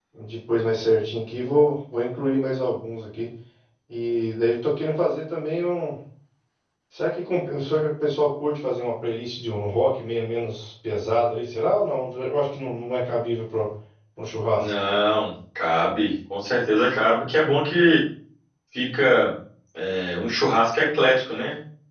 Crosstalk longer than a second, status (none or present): none